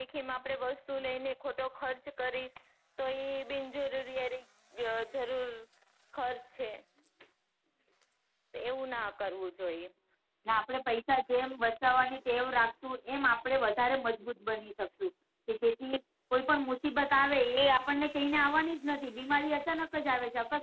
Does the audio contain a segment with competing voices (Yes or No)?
No